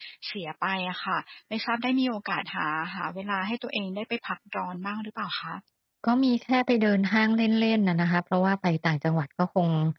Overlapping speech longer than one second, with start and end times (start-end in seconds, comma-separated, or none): none